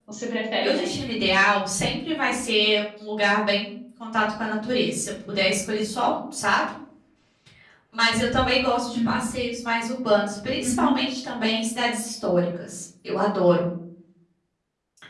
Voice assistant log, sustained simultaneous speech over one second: none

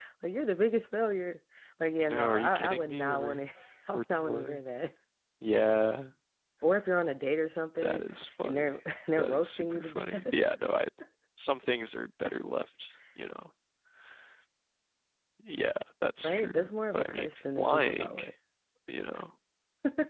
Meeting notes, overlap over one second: present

